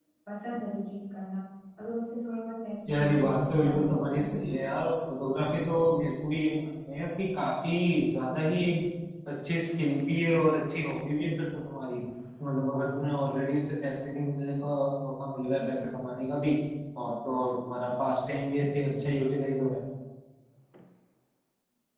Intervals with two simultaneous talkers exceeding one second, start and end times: 2.9-4.4

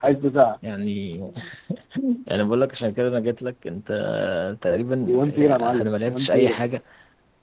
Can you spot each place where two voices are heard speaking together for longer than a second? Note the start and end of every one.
5.0-6.6

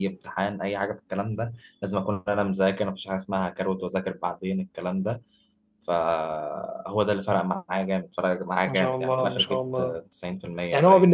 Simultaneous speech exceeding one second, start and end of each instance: 8.7-9.9

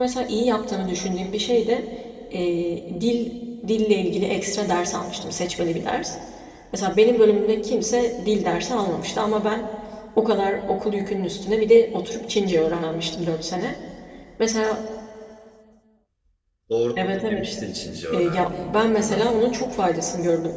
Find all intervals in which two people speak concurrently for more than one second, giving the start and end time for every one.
18.1-19.4

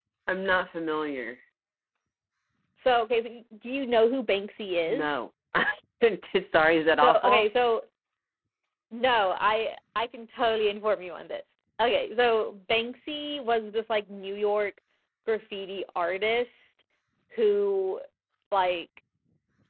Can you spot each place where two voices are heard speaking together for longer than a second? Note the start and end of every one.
none

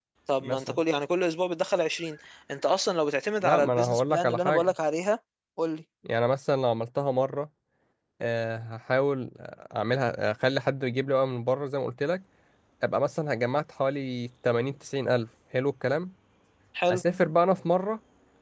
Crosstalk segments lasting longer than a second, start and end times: 3.4-4.7

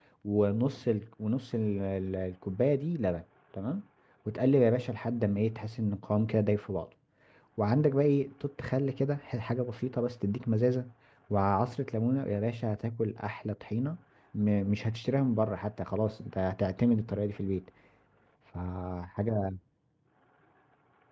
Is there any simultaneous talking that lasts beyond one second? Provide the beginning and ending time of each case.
none

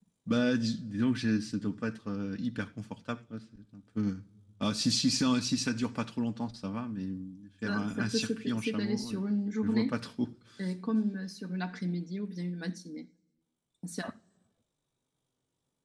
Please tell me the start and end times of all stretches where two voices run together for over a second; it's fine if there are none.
7.6-9.2

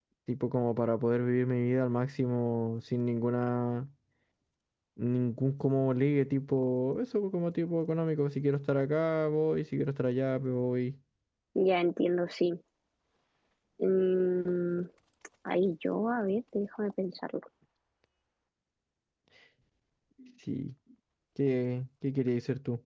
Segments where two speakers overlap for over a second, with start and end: none

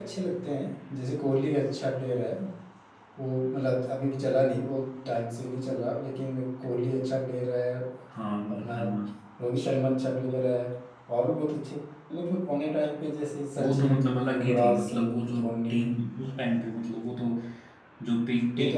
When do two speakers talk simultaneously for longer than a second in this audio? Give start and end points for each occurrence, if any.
13.6-15.8

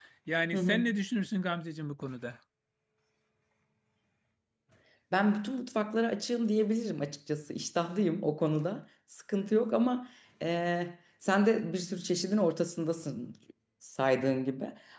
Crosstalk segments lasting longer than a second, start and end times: none

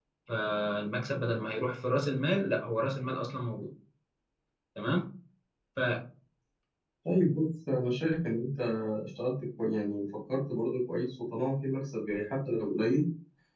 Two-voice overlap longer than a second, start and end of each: none

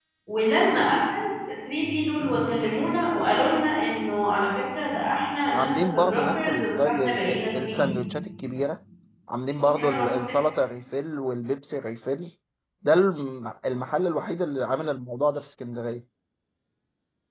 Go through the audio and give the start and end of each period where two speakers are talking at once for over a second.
5.5-8.0

